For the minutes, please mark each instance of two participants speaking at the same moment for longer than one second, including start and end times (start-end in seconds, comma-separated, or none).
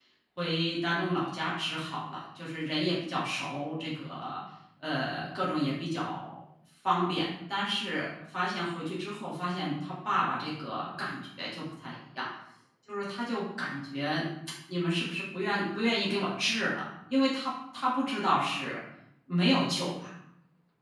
none